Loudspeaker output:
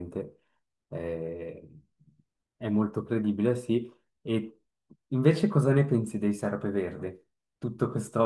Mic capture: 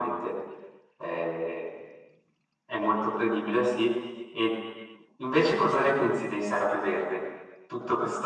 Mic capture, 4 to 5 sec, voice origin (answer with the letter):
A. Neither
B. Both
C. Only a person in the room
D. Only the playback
D